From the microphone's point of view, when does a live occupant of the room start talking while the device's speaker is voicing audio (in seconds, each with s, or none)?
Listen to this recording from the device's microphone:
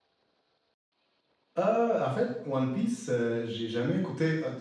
1.6 s